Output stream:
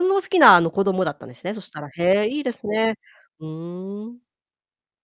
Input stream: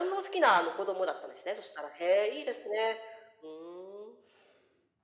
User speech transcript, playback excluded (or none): none